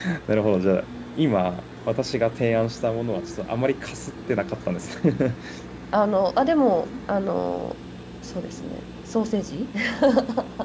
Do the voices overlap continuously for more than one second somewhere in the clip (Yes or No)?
No